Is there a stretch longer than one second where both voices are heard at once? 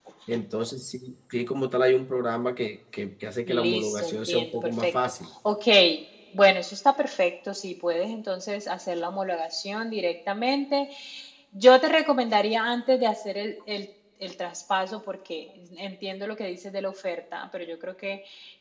Yes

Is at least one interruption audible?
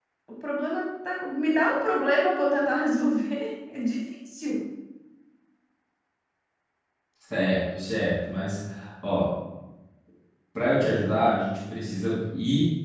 No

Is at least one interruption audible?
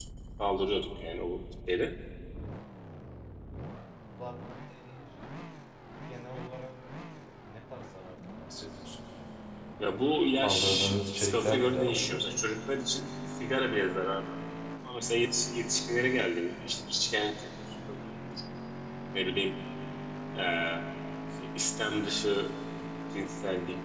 Yes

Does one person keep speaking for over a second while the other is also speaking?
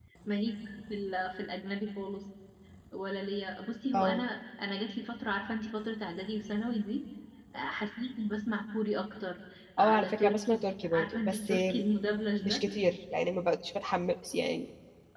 Yes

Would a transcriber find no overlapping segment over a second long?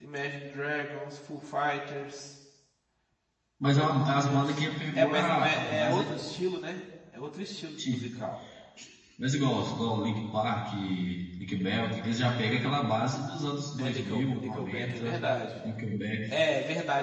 No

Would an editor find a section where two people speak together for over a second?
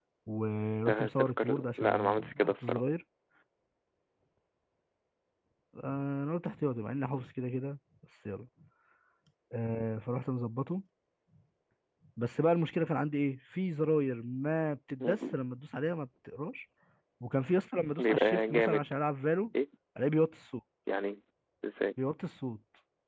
Yes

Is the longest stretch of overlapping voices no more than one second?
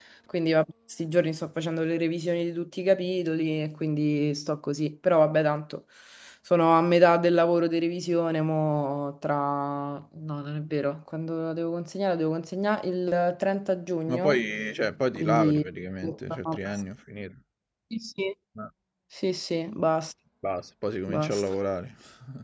Yes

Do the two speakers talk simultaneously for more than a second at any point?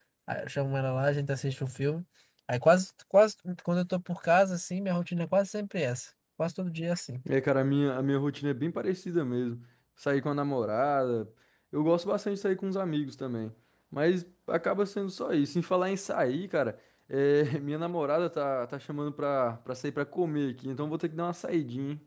No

